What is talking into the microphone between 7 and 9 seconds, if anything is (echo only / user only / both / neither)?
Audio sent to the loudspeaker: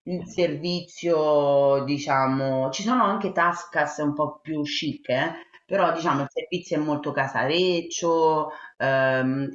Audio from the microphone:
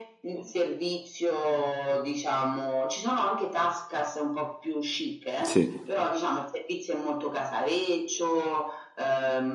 echo only